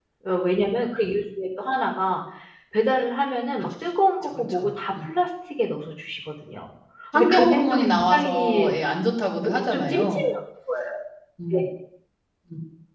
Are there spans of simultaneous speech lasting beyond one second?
Yes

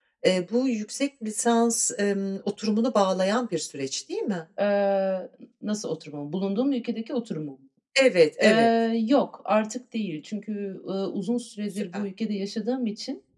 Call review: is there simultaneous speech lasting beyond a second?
No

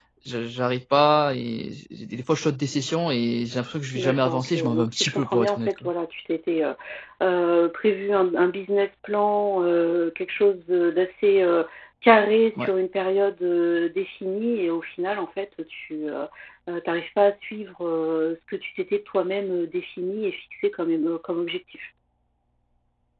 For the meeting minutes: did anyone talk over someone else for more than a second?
Yes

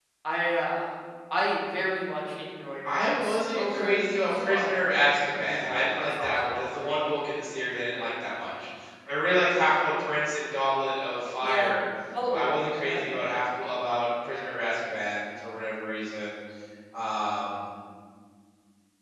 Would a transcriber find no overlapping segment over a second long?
No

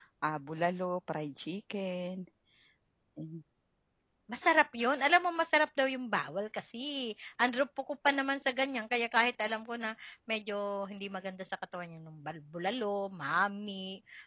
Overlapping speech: No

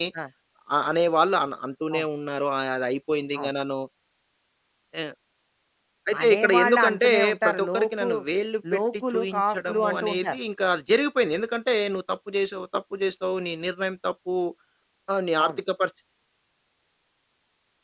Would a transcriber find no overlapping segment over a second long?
No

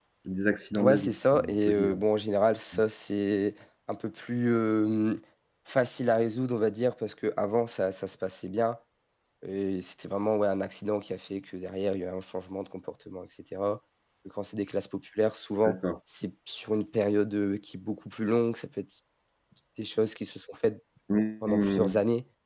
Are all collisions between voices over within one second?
No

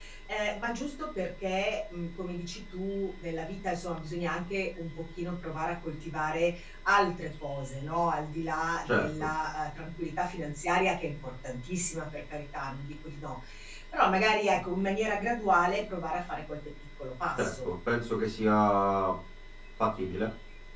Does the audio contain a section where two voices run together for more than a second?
No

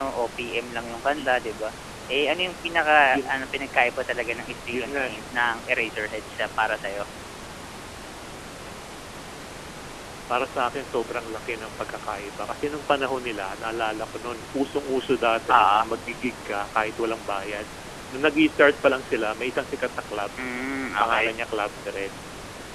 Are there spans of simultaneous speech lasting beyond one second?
No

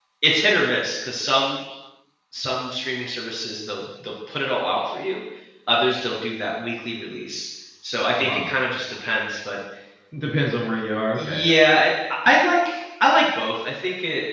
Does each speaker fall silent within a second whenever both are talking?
Yes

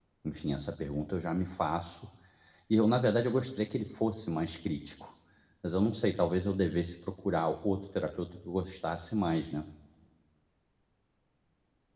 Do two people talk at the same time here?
No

